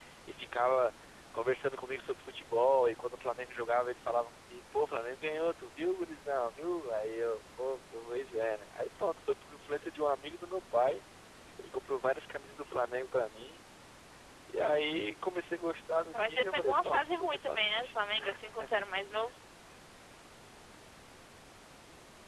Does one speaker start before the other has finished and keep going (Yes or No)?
Yes